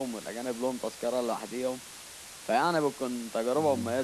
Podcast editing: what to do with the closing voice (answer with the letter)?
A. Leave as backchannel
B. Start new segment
A